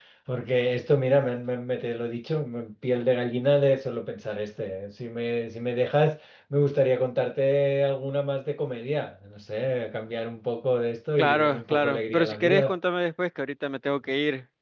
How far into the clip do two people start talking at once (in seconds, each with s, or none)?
11.2 s